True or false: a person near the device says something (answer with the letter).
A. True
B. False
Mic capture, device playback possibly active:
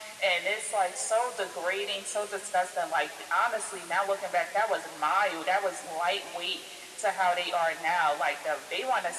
B